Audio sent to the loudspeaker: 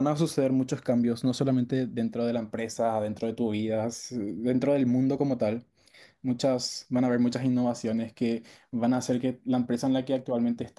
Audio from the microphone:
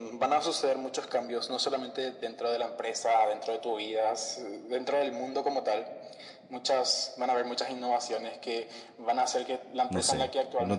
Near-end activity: present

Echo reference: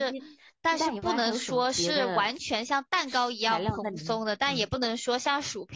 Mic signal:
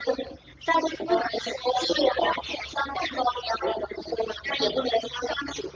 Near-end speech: none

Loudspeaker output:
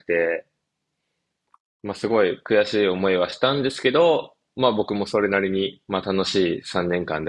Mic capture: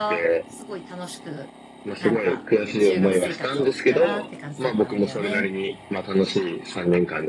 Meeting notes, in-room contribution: present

